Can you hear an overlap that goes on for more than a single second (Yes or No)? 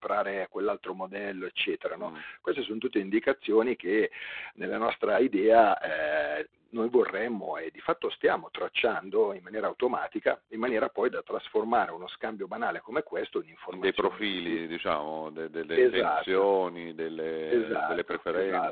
Yes